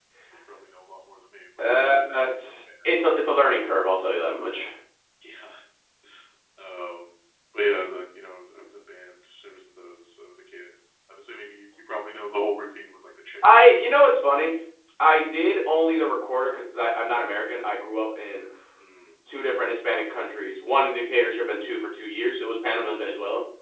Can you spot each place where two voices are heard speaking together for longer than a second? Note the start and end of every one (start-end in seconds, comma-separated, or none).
1.6-3.0